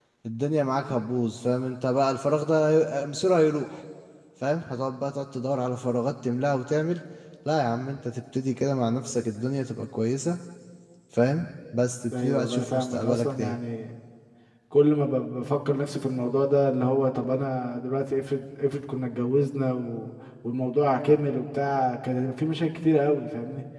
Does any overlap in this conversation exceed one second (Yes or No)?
Yes